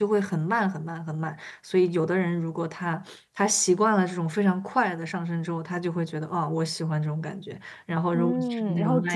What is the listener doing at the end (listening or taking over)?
taking over